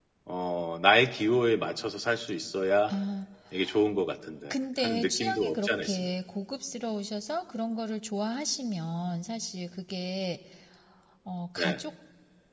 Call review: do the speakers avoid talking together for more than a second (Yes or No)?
No